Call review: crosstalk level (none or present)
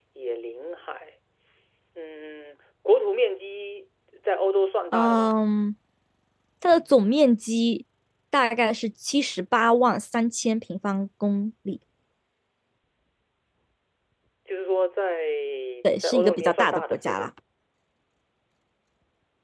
present